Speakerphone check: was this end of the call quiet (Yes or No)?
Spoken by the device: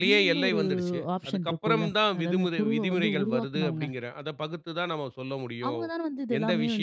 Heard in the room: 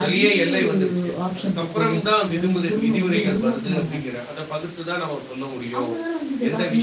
Yes